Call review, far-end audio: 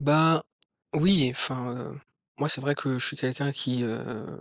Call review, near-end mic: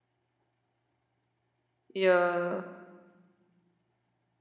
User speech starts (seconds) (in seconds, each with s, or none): 1.9 s